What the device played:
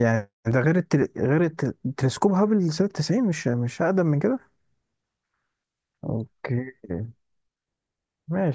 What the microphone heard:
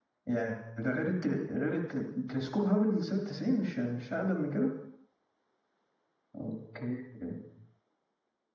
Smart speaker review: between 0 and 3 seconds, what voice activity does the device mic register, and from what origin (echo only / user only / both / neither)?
echo only